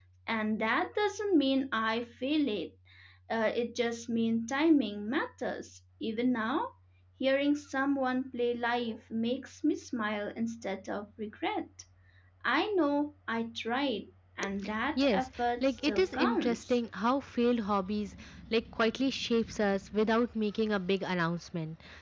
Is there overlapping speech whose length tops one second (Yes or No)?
Yes